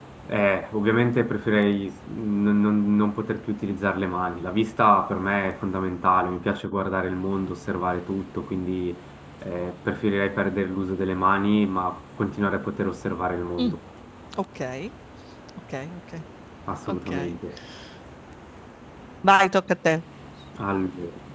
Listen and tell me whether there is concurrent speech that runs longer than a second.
No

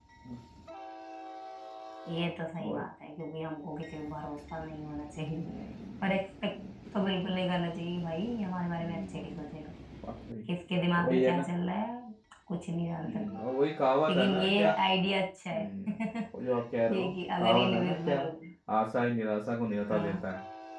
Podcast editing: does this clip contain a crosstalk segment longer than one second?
Yes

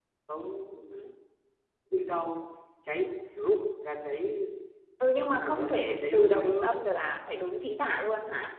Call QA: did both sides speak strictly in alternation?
No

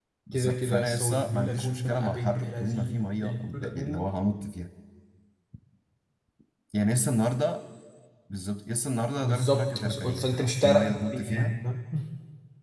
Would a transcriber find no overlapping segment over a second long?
No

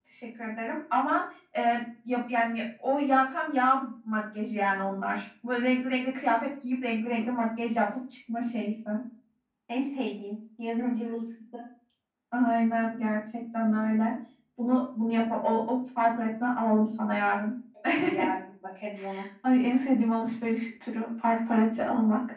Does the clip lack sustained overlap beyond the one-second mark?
Yes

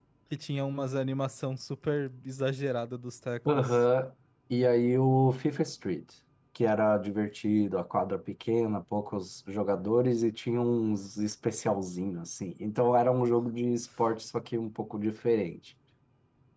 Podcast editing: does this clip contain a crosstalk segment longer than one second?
No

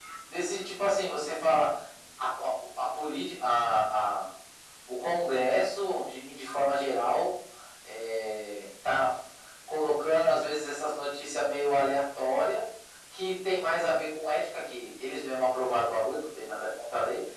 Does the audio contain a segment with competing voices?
No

